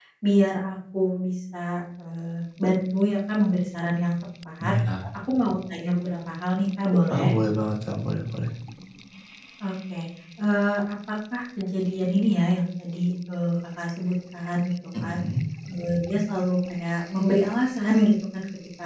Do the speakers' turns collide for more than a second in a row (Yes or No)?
No